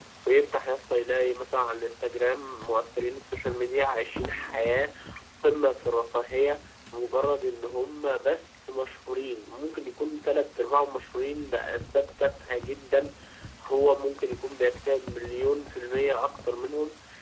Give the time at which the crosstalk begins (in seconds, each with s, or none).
none